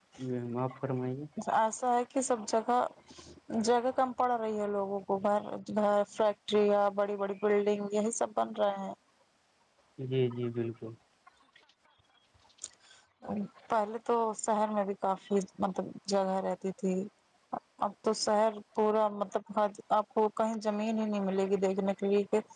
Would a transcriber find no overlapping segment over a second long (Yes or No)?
Yes